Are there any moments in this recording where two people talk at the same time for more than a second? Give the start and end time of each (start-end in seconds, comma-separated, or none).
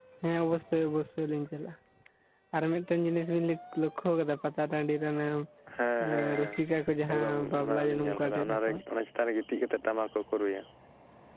7.1-8.8